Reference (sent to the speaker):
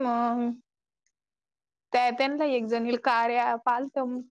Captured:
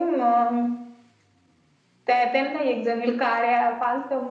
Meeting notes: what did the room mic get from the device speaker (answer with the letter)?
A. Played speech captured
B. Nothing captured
A